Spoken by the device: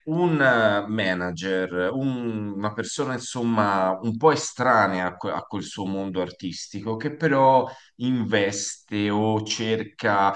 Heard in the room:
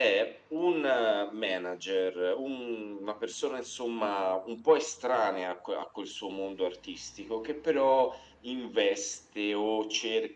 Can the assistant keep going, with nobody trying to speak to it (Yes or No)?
Yes